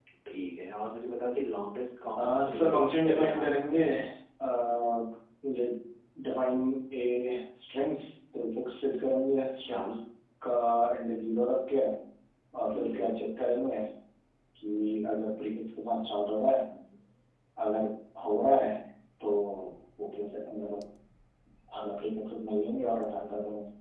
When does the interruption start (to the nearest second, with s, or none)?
2 s